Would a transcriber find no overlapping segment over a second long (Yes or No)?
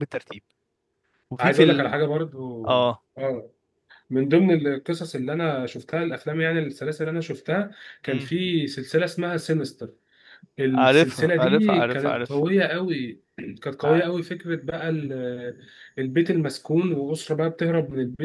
No